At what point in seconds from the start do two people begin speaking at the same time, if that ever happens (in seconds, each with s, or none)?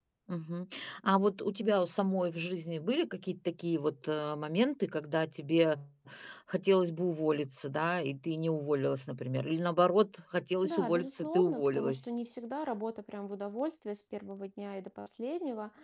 10.6 s